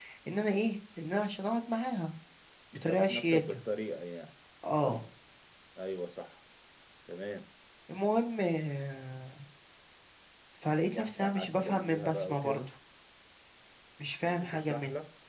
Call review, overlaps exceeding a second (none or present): present